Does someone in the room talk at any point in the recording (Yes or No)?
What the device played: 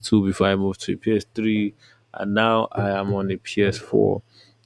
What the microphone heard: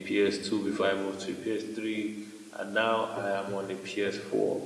No